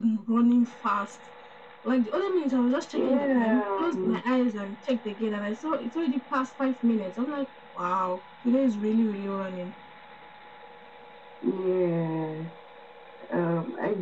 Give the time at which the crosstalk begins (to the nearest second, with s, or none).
3 s